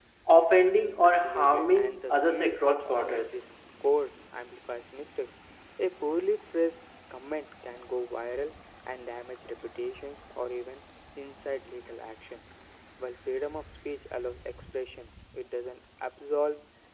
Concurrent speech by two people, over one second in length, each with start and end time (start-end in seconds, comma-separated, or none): 1.0-3.3